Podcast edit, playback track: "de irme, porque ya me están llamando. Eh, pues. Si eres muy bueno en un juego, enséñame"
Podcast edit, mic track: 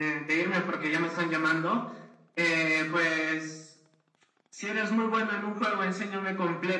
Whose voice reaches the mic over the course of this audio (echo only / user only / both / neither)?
echo only